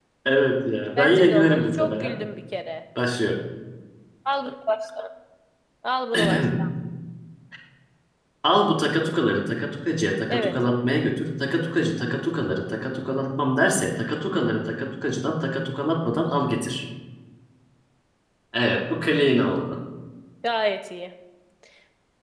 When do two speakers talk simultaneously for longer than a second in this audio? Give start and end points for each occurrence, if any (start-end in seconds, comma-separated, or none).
1.0-2.2